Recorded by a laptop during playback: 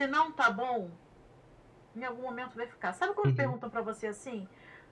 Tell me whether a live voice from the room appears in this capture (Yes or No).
Yes